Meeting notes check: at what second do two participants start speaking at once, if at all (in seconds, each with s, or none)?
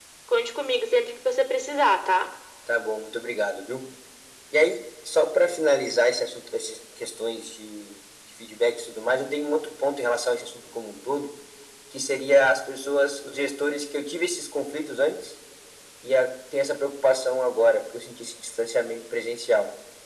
none